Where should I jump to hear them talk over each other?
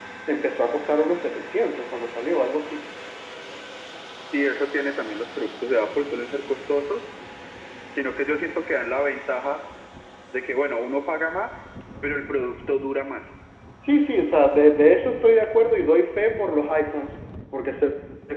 none

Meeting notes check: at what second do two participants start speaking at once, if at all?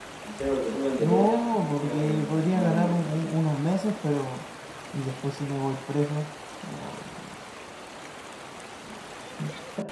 1.0 s

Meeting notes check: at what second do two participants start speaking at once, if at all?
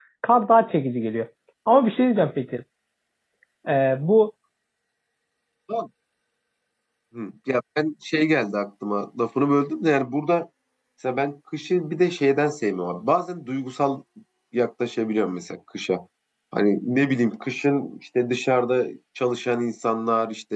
none

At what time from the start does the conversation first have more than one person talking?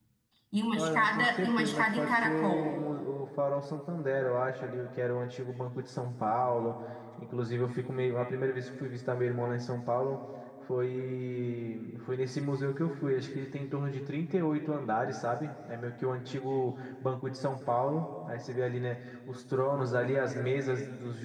0.7 s

